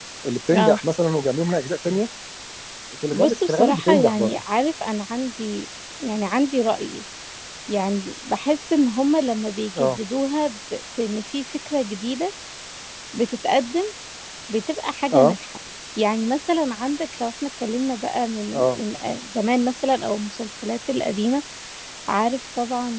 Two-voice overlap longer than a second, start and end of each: 3.1-4.4

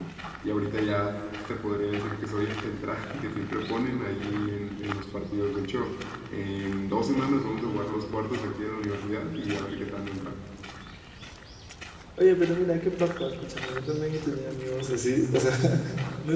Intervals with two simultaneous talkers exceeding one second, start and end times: none

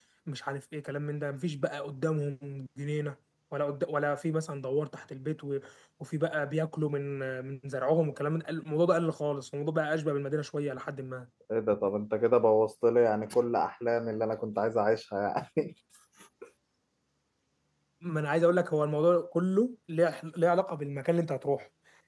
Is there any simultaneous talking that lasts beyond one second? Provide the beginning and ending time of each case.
none

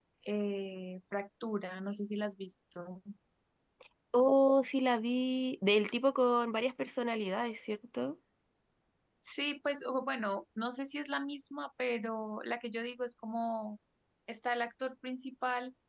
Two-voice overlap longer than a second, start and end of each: none

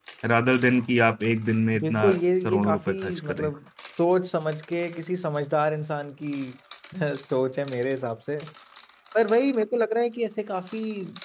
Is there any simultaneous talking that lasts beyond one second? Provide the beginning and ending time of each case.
1.8-3.5

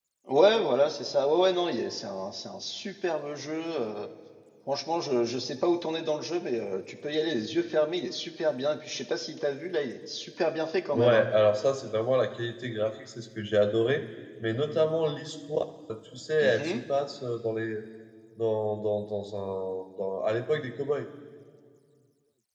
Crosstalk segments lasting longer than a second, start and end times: none

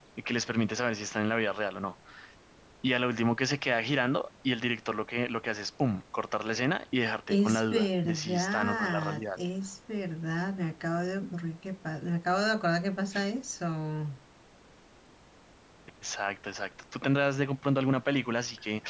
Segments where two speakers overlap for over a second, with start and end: 7.3-9.2

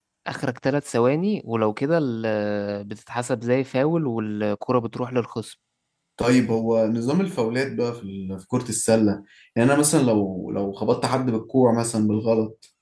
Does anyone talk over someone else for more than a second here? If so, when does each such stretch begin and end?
none

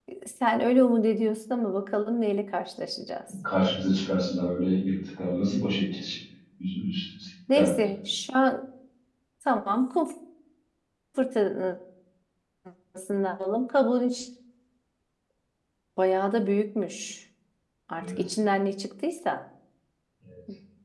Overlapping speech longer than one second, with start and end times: none

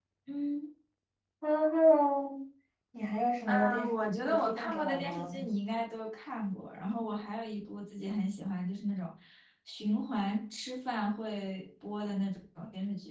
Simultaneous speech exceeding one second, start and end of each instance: 3.5-5.4

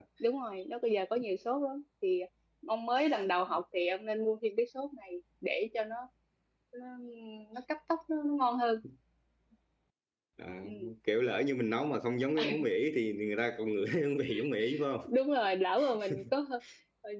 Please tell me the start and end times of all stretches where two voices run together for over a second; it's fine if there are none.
none

